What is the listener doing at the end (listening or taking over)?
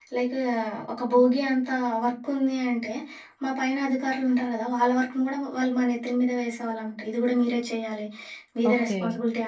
listening